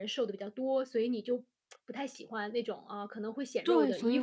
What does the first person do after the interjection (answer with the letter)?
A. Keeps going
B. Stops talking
B